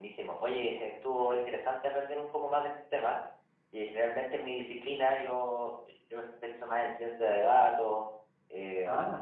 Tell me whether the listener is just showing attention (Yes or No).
Yes